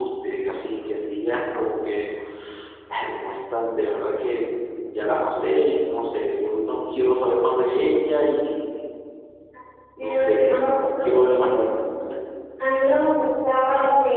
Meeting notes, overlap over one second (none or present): present